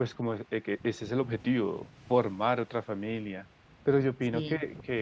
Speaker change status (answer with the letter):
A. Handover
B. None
B